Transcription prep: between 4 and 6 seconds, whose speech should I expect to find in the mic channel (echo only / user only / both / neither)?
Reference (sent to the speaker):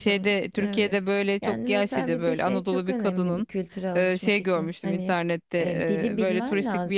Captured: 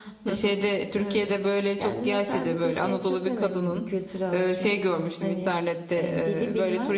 echo only